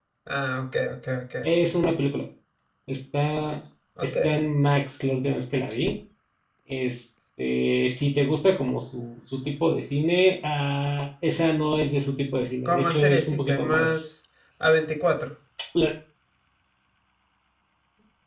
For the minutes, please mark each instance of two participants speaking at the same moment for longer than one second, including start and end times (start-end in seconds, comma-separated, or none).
12.6-14.0